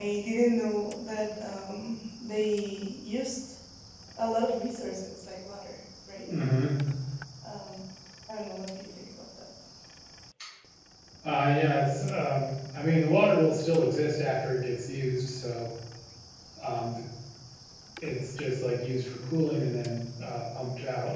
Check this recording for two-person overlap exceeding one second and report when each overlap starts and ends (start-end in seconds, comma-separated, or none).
none